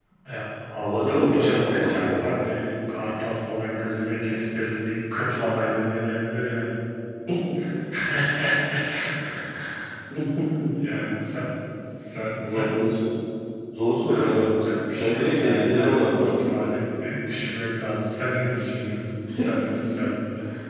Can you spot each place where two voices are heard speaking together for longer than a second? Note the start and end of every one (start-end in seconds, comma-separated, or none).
0.8-2.3, 14.9-16.5